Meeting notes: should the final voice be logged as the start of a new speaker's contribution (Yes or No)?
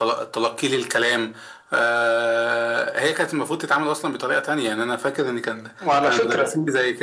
No